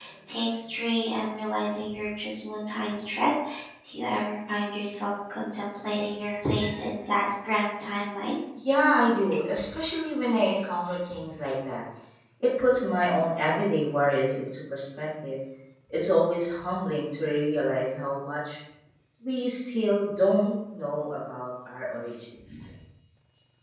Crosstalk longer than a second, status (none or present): none